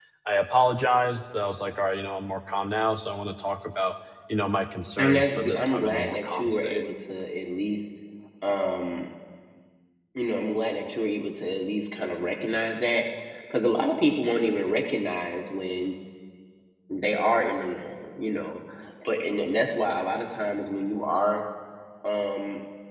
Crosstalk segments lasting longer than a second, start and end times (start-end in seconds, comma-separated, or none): 5.0-6.8